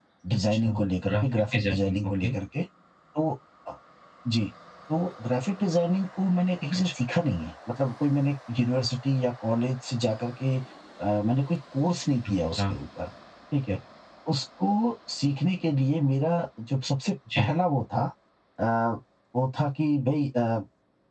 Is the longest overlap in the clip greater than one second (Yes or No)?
Yes